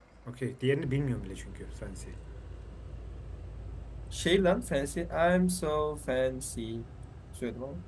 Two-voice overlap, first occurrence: none

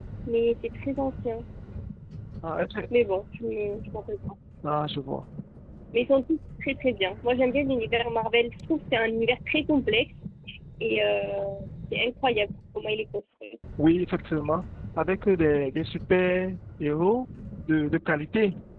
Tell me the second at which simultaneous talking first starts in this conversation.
none

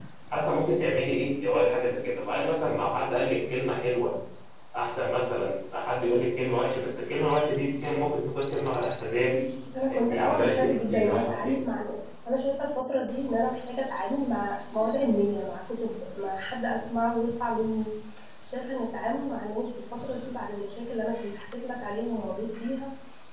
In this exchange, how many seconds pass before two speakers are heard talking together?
9.9 s

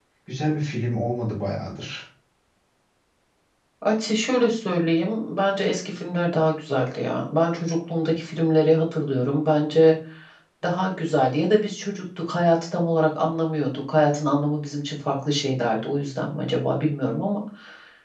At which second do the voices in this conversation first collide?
none

